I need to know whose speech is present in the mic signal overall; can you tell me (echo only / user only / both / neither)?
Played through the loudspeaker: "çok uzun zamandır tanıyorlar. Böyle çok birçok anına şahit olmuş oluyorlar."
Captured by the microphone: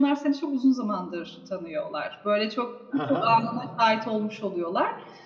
both